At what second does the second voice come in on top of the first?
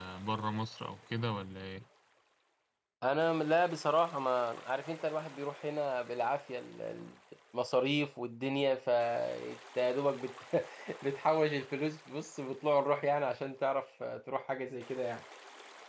none

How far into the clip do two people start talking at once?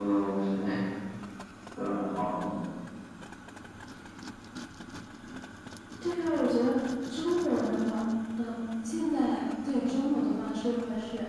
none

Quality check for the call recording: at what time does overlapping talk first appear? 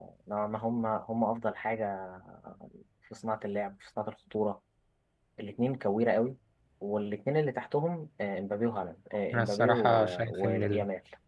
9.3 s

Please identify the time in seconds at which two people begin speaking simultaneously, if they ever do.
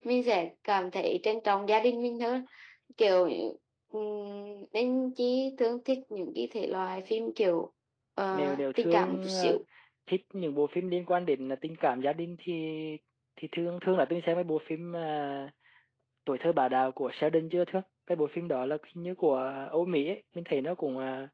8.3 s

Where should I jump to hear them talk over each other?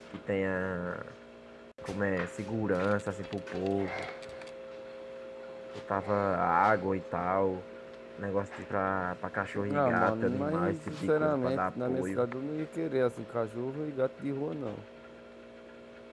9.5 s

